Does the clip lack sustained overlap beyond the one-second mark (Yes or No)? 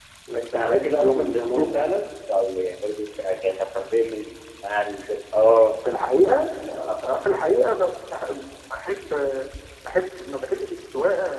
No